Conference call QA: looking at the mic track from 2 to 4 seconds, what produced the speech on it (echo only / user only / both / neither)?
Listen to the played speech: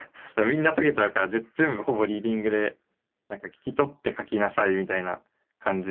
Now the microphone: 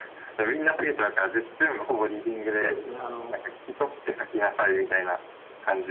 both